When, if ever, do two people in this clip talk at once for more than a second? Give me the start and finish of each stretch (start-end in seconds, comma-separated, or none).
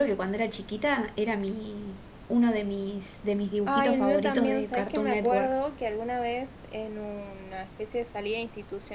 3.7-5.5